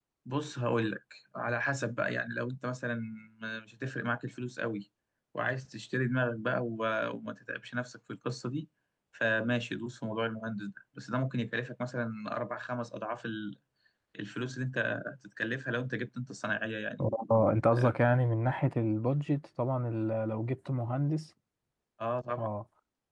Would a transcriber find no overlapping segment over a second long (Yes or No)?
Yes